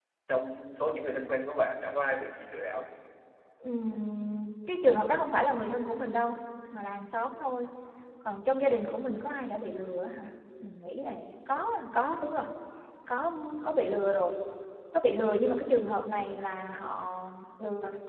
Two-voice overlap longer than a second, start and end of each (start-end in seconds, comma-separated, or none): none